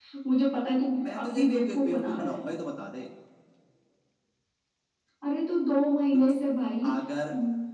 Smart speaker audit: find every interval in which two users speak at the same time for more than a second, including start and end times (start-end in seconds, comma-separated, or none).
1.0-2.4